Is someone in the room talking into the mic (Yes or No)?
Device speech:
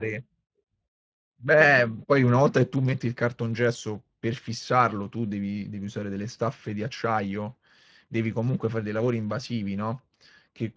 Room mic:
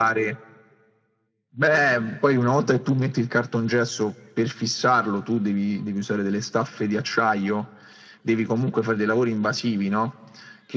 No